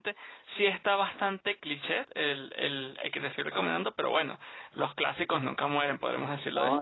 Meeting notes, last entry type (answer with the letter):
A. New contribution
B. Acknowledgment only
A